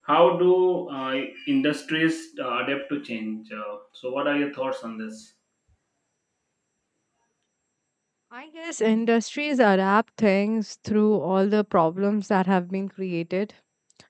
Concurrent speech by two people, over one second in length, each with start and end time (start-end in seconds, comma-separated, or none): none